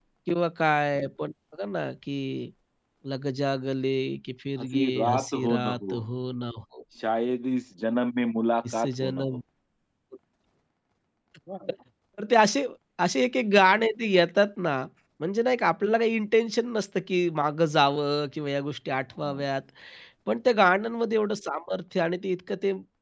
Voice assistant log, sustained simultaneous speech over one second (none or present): present